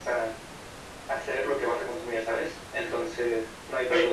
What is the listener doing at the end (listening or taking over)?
taking over